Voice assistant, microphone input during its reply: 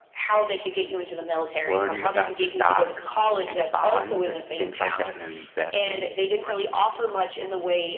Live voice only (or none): learning about stocks and bonds and things like that and investment,